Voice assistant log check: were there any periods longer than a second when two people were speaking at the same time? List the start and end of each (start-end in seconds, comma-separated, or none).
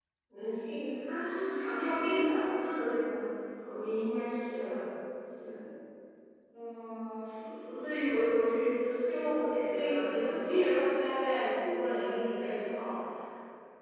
9.1-10.6